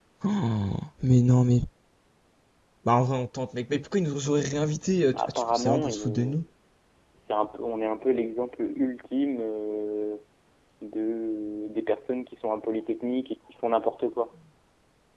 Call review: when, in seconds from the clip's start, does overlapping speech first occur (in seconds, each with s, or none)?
5.1 s